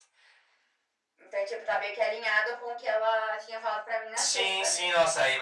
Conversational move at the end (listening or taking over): taking over